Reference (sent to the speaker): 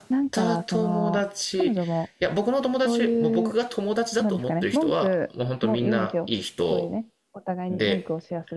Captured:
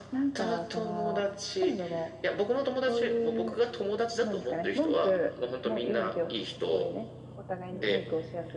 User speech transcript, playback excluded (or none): none